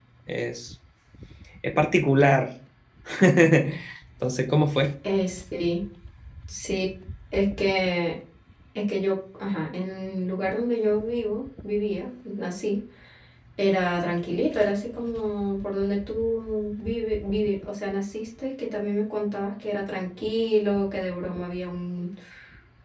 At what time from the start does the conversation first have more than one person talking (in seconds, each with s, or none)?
none